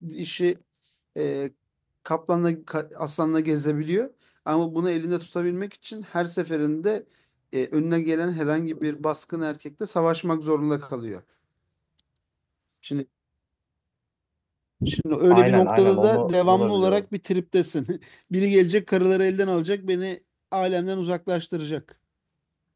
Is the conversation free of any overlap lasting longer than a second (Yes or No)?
No